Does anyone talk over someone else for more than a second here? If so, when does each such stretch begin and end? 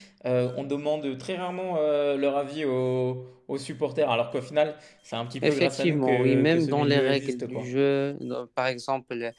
5.4-7.7

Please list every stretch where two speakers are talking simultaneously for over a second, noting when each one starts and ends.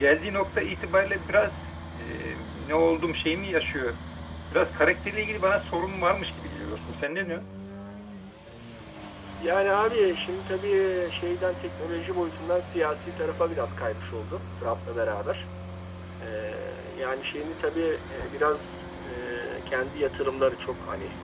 none

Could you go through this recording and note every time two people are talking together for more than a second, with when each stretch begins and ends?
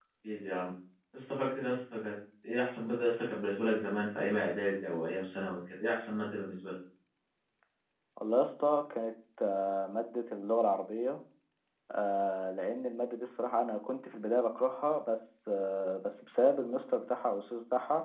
none

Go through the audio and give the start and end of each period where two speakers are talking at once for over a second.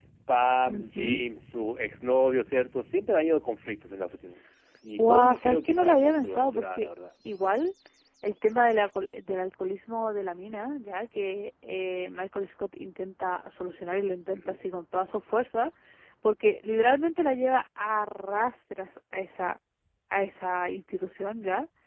5.0-6.9

